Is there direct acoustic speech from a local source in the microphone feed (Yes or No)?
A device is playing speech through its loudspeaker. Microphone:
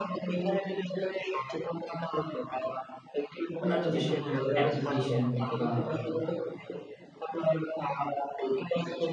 Yes